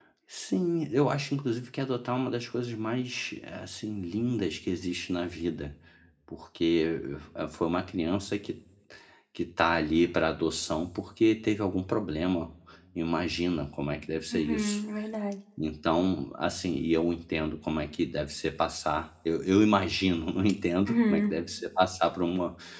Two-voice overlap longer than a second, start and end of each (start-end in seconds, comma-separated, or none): none